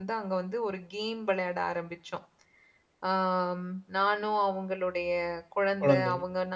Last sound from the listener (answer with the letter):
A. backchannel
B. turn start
A